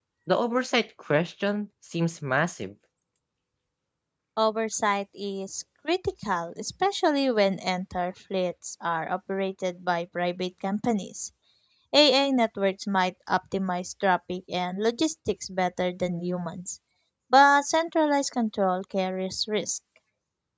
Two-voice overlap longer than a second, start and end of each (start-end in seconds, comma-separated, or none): none